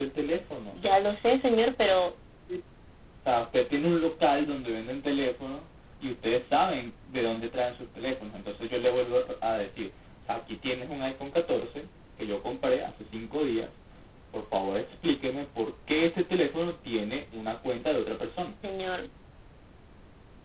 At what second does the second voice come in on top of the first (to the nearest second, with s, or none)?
none